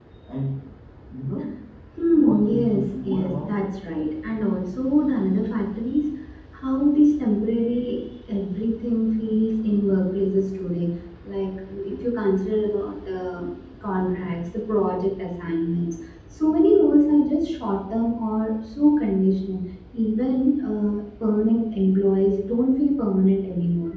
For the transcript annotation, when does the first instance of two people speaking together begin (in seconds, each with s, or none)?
2.2 s